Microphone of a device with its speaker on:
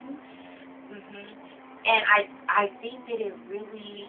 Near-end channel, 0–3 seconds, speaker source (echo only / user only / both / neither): user only